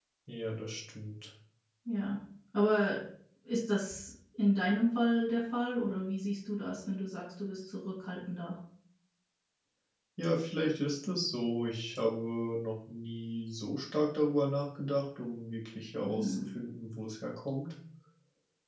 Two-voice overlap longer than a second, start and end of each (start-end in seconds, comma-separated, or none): none